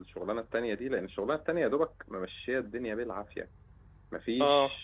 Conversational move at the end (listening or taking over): listening